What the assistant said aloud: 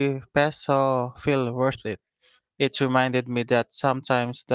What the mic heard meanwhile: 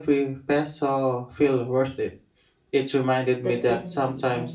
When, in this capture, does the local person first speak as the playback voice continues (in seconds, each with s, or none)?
3.4 s